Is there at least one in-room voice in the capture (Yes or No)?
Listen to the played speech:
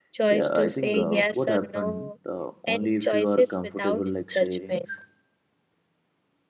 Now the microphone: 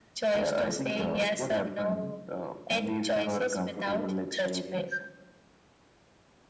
No